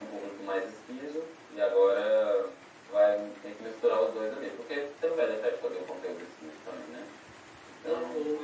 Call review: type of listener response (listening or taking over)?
taking over